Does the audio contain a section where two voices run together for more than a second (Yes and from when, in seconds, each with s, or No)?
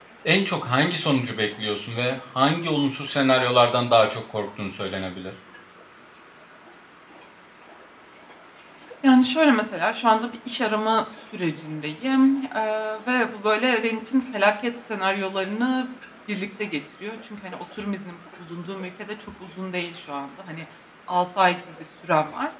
No